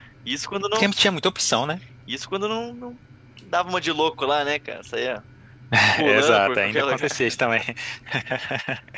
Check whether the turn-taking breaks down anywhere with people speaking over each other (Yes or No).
Yes